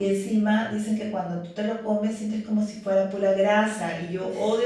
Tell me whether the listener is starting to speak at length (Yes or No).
No